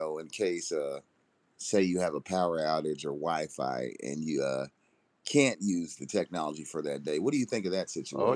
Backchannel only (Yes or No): No